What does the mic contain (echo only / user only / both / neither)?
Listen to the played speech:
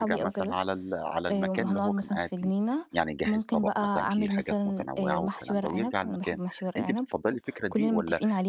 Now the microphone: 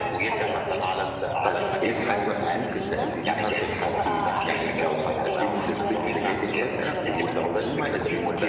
both